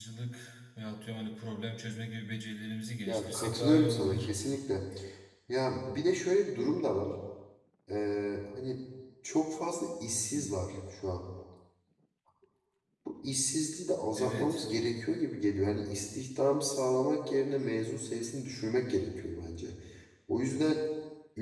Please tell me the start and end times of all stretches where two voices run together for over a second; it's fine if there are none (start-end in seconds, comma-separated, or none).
3.1-4.3